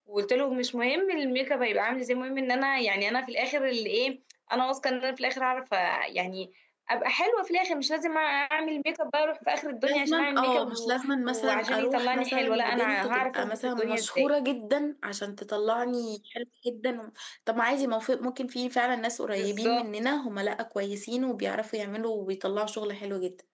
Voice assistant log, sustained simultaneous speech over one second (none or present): present